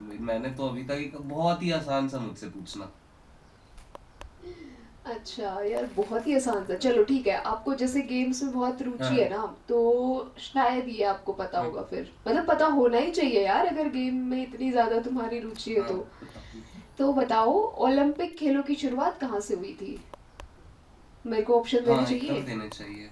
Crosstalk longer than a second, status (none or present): none